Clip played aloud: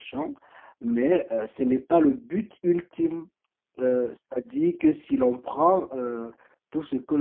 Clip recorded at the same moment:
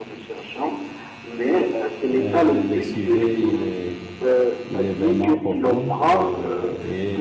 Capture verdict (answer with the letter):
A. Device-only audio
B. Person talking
B